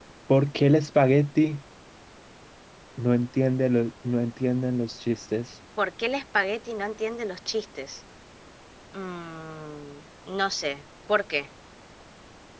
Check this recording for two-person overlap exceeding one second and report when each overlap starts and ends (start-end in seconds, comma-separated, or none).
none